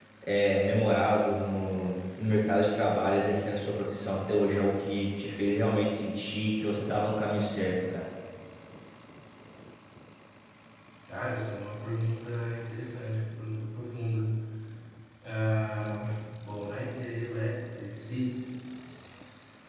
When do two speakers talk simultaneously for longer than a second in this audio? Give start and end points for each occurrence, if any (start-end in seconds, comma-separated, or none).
none